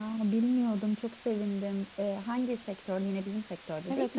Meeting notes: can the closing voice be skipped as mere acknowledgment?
No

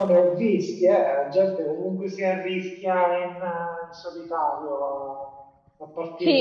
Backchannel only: No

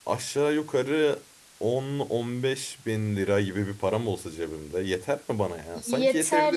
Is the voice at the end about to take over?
Yes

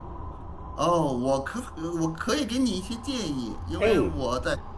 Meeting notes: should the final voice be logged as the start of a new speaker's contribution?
No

